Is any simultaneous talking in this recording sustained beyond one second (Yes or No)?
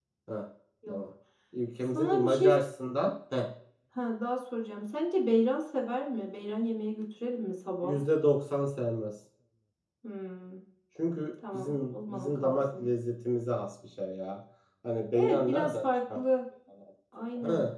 Yes